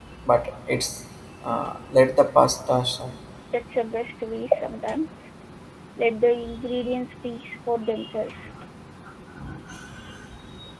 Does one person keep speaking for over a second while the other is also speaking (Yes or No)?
No